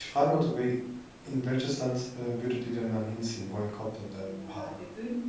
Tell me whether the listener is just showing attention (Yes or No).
No